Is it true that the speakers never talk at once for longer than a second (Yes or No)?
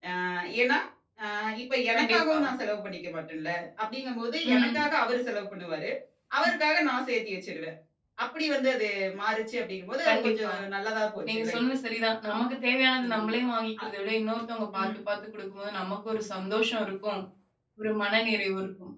Yes